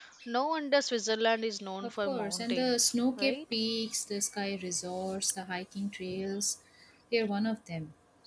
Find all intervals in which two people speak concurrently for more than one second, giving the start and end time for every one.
1.8-3.4

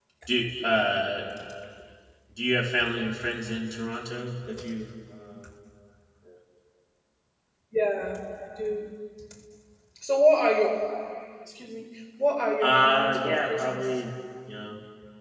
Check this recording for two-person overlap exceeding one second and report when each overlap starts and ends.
12.6-13.9

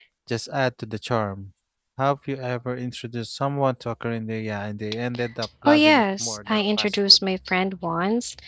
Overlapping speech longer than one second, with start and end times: 5.7-7.2

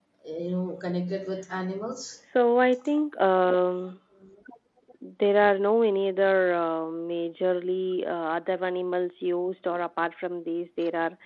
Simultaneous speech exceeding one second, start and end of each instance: none

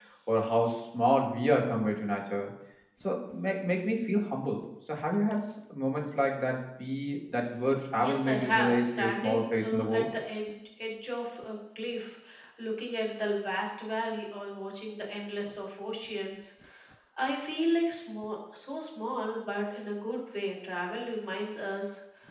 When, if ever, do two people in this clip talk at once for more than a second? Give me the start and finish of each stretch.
7.9-10.1

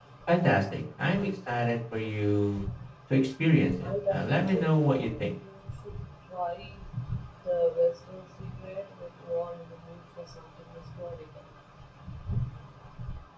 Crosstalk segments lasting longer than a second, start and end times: 3.8-5.1

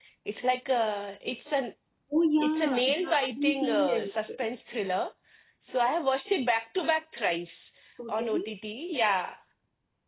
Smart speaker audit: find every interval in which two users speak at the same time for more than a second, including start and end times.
2.4-4.4

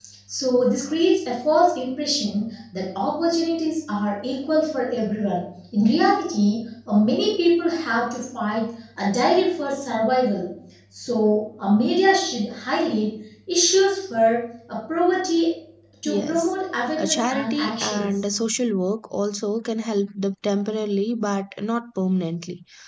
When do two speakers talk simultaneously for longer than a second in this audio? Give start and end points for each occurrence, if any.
17.0-18.3

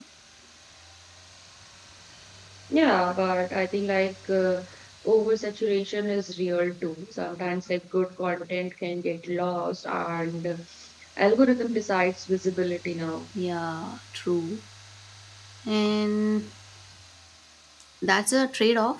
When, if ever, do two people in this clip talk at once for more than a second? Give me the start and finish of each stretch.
none

